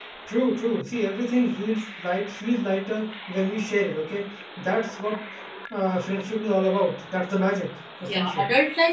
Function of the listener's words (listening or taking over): taking over